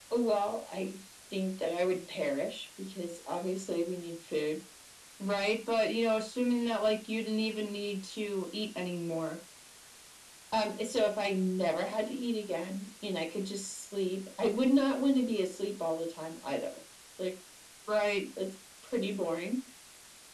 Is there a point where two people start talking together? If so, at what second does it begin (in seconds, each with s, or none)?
none